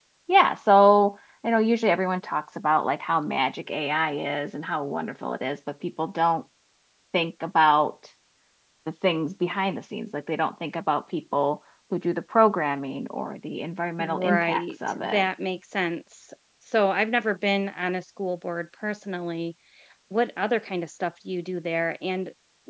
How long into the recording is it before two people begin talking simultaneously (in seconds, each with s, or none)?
14.0 s